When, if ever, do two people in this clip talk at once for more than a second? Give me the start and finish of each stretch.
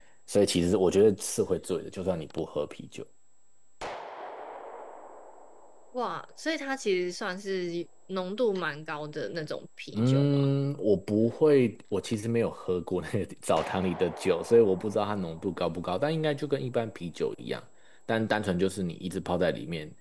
none

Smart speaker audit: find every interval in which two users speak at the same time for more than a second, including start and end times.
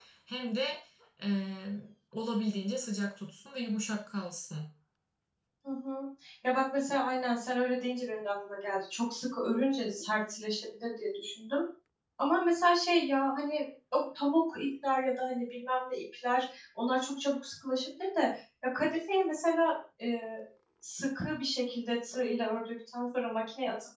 none

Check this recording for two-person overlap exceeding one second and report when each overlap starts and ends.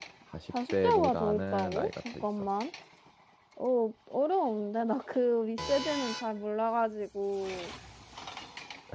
0.7-2.5

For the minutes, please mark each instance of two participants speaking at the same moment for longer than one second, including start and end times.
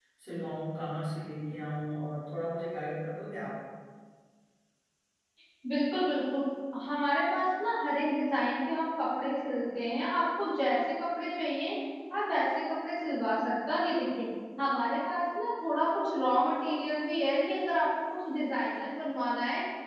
none

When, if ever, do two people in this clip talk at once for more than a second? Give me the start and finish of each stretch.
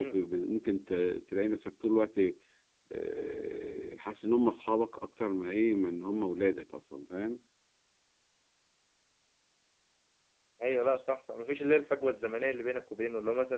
none

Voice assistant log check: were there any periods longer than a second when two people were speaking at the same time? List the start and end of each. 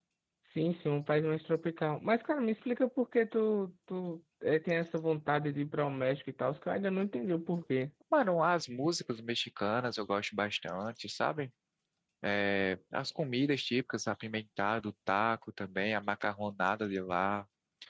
none

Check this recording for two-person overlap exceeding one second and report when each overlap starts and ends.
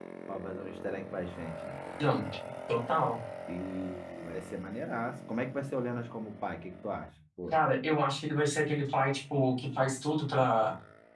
none

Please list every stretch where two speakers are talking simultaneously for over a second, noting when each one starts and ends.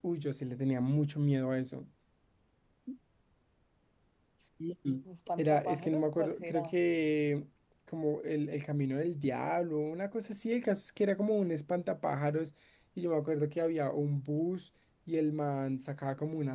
5.4-6.7

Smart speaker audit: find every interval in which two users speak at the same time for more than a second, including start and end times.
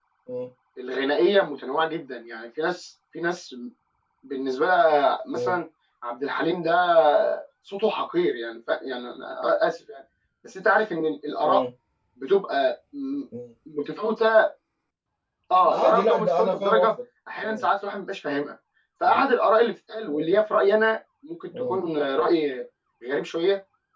15.7-16.9

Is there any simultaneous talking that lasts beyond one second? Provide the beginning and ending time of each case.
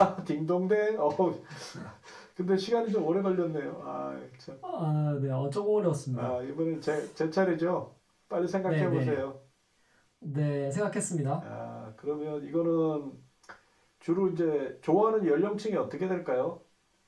none

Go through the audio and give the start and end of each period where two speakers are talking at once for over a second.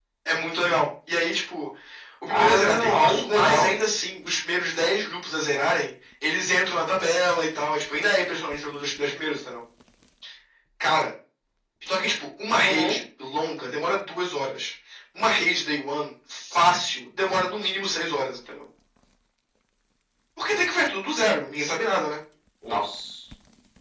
2.3-3.7

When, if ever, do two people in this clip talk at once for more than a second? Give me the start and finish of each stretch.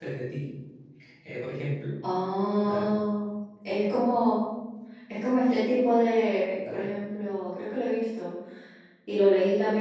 none

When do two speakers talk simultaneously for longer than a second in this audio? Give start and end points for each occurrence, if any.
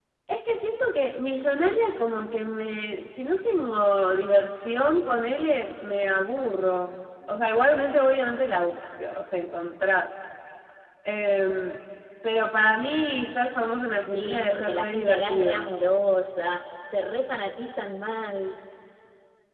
14.1-15.7

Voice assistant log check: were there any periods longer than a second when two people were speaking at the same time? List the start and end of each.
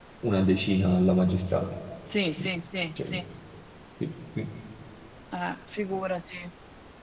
none

